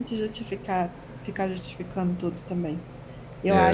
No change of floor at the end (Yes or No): Yes